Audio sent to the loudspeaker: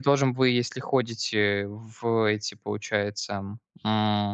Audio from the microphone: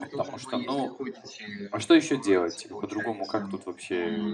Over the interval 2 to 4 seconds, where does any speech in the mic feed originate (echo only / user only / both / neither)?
both